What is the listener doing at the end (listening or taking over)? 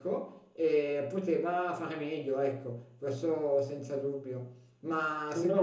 listening